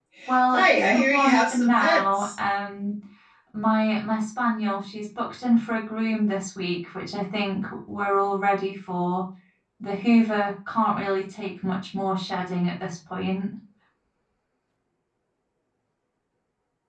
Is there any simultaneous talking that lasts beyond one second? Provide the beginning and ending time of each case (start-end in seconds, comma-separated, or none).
0.5-2.3